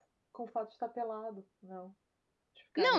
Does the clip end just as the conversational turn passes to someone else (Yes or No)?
Yes